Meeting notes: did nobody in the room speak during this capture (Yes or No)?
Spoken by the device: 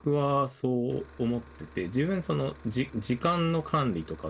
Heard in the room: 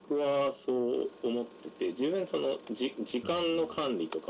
No